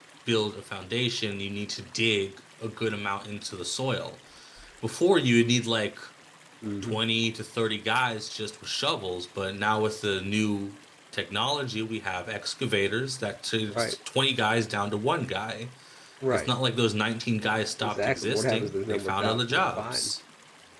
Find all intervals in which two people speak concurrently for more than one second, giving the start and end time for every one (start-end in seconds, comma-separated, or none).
17.8-20.1